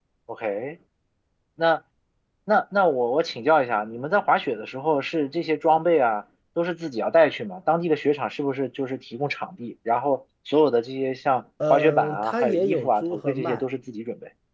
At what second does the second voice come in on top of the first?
12 s

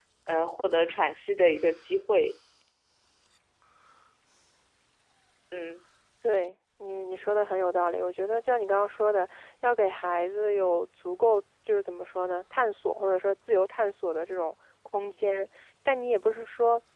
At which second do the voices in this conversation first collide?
none

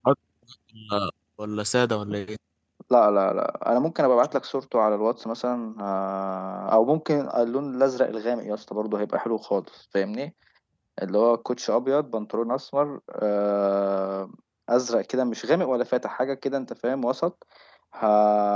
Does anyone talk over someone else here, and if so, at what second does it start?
none

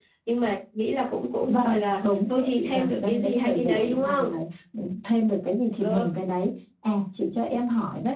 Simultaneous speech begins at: 1 s

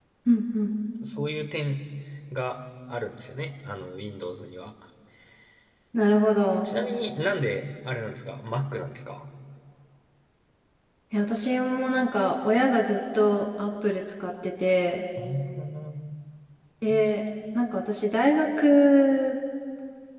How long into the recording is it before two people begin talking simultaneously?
none

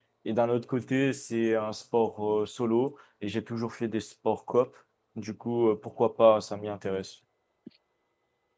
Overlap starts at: none

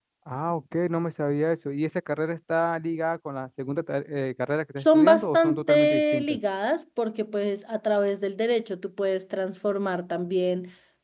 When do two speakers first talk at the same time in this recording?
5 s

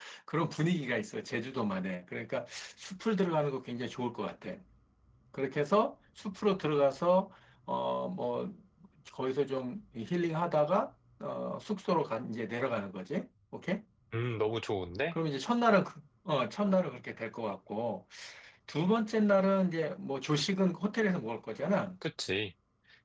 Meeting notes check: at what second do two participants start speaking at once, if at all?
none

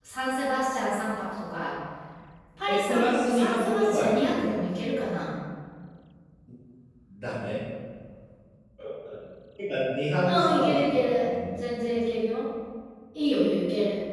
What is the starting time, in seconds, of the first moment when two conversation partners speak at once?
3 s

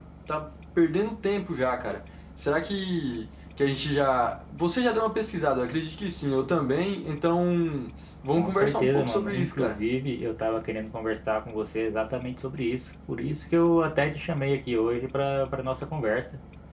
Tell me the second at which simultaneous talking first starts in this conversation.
8 s

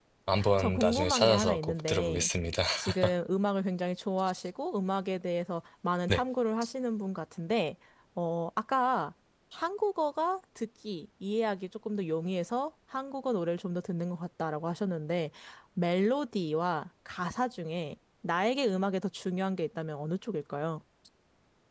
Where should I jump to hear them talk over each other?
1 s

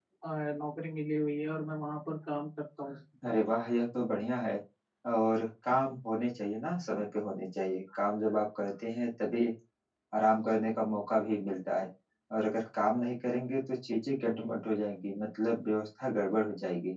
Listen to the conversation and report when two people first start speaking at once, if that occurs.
none

